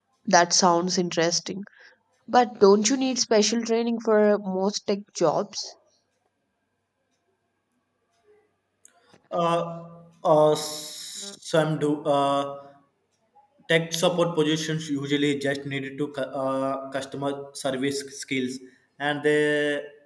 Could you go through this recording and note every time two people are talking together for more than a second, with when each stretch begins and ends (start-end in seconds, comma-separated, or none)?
none